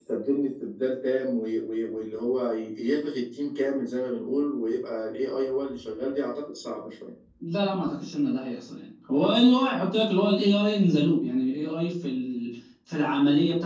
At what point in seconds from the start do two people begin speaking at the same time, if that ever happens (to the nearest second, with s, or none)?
none